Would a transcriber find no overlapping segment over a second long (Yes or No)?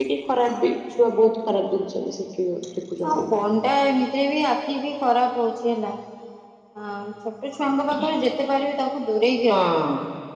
Yes